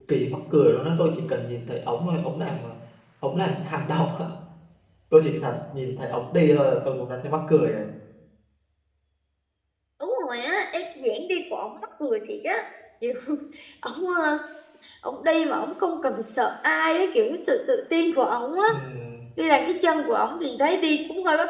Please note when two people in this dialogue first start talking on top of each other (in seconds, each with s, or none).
none